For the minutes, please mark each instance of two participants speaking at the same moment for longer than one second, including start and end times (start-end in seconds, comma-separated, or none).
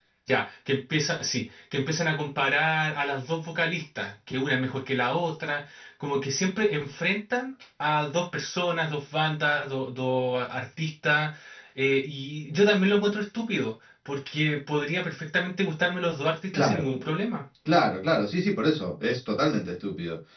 none